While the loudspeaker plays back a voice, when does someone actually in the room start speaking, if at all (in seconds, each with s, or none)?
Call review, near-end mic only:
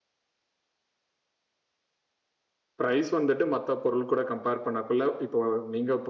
2.8 s